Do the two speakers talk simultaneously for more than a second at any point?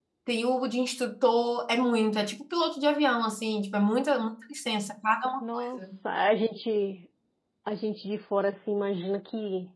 No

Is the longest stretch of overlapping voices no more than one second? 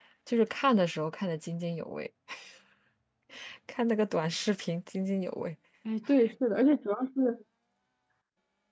Yes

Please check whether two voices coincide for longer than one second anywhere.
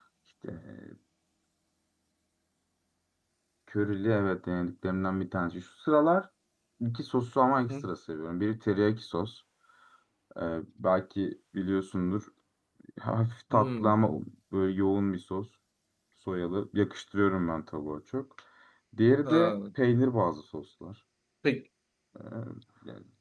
No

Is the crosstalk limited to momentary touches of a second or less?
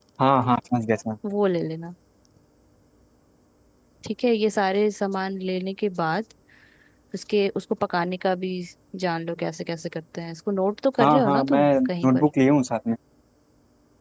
No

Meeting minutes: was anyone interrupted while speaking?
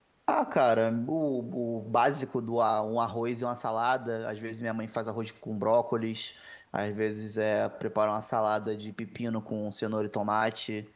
No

